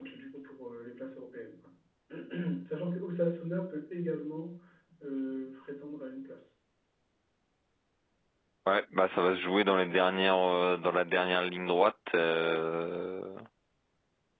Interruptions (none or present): none